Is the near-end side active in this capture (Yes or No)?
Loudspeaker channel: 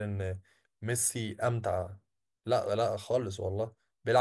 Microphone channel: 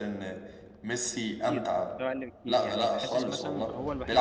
Yes